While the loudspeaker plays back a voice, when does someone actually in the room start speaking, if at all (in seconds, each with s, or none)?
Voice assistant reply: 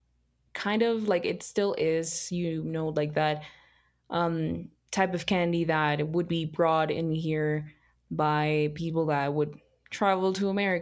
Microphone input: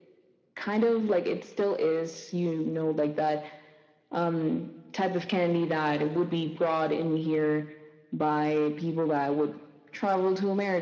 none